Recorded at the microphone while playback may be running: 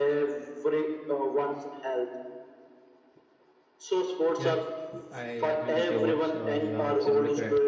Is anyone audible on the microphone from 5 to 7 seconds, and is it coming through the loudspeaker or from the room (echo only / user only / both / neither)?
both